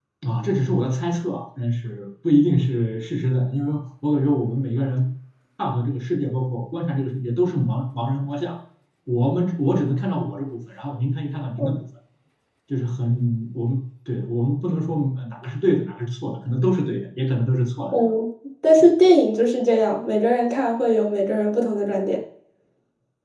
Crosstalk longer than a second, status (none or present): none